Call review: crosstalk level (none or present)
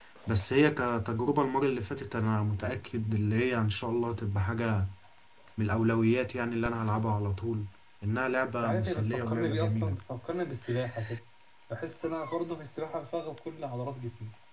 present